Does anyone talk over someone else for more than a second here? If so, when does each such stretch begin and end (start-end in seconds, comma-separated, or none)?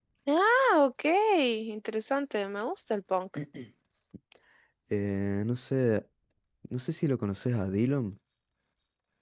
none